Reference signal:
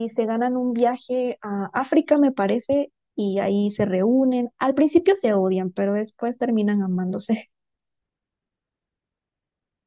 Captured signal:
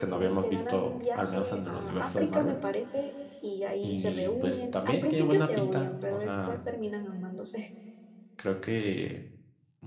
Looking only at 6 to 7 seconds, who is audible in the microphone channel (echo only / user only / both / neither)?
both